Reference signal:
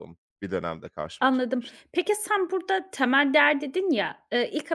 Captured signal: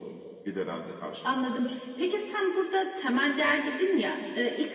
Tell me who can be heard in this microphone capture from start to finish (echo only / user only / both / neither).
echo only